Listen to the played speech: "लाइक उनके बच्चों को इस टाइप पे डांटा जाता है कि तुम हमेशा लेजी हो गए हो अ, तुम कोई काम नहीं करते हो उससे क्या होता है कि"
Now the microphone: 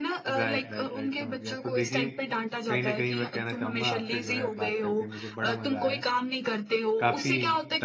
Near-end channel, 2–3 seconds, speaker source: both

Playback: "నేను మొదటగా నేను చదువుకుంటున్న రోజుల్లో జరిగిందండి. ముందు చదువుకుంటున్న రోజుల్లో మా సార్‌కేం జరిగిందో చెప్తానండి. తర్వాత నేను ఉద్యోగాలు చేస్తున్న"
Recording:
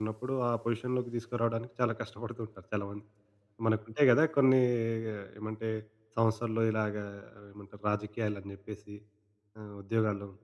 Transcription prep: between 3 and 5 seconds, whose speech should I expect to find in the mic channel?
user only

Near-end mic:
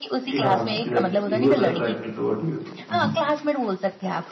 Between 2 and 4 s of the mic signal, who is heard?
both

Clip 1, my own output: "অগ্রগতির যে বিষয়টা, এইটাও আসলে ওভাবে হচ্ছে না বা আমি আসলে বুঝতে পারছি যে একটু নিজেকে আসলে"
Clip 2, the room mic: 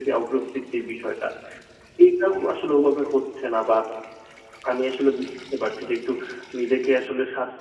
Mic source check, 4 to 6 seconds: echo only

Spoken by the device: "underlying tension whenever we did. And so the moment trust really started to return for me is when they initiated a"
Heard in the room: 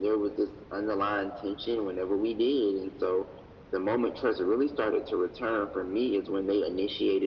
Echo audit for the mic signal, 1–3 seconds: echo only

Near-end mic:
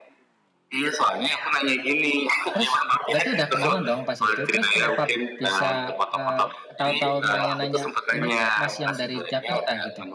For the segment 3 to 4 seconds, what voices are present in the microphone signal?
both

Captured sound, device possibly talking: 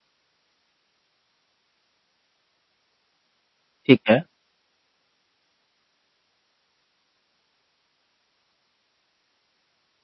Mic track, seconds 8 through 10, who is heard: neither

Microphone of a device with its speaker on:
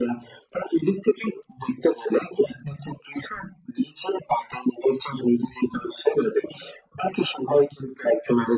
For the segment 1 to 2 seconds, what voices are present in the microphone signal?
echo only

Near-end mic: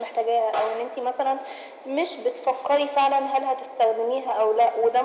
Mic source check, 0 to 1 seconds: echo only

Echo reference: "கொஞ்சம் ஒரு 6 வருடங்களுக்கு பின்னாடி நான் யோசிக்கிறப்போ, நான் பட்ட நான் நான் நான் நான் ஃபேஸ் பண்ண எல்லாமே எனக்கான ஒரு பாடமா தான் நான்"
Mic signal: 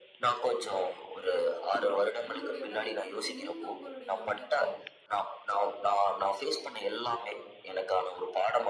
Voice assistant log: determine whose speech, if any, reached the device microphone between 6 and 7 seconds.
echo only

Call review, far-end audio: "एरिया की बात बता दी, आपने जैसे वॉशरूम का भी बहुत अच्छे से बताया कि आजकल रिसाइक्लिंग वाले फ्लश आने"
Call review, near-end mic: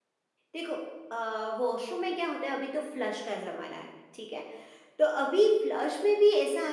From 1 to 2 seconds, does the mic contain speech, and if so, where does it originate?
user only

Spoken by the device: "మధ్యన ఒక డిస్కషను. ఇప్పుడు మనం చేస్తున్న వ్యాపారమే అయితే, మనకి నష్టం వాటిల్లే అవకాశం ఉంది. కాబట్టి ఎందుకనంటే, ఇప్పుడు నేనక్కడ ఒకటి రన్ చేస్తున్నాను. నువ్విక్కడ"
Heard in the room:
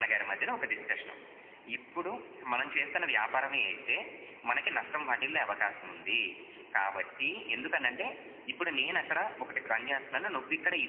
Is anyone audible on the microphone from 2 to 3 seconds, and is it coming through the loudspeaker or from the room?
echo only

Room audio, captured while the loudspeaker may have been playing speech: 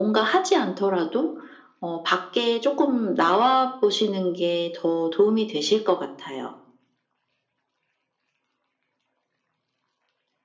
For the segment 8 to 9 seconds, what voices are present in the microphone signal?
neither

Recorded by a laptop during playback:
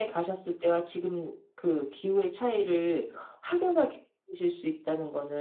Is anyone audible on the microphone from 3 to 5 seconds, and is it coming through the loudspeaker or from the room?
echo only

